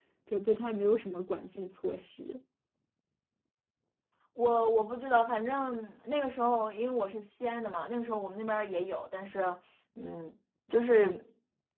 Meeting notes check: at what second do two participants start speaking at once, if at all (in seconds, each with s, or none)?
none